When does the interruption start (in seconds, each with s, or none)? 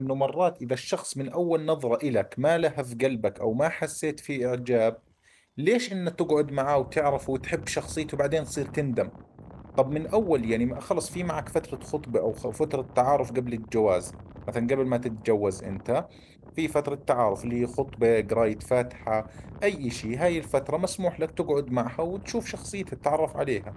none